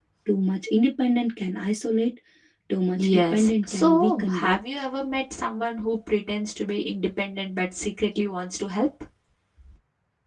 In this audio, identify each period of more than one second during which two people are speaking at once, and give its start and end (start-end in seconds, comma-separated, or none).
3.0-4.6